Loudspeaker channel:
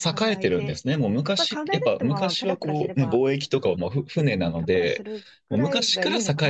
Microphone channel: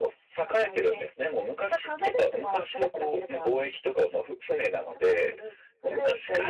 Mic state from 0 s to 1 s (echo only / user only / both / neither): echo only